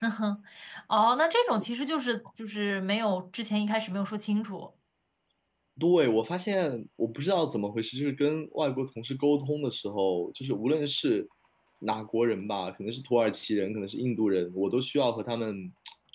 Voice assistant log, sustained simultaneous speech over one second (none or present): none